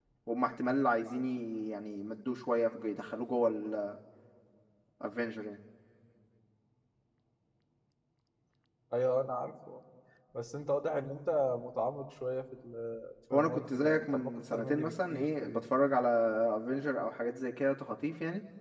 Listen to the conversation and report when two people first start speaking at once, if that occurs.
13.3 s

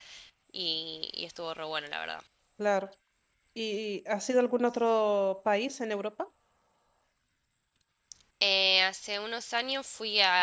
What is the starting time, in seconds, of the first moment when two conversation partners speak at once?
none

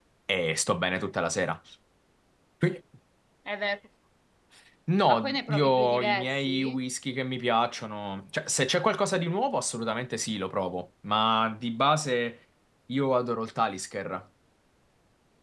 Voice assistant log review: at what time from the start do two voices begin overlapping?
5.1 s

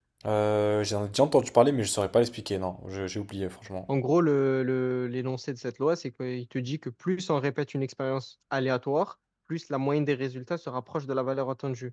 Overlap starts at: none

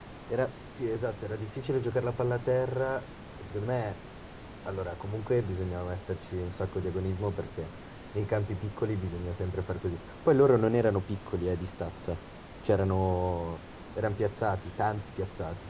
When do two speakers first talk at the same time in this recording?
none

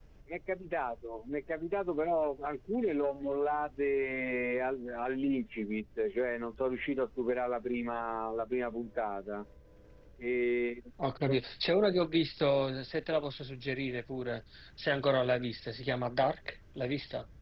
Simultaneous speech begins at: none

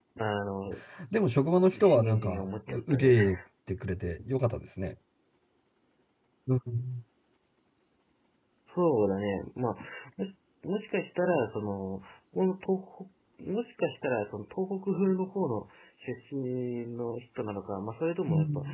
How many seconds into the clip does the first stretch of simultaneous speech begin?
1.8 s

